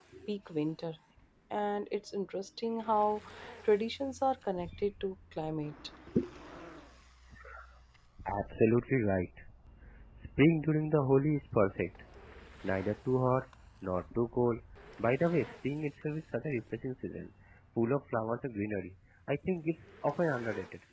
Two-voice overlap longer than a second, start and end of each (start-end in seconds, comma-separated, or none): none